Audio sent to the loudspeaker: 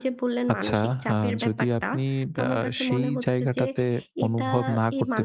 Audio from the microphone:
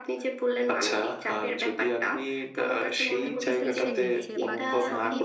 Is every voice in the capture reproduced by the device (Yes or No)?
No